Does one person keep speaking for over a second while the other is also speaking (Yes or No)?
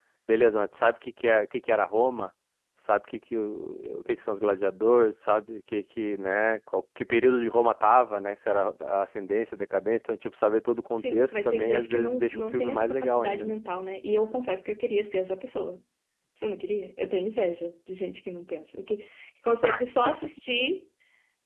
Yes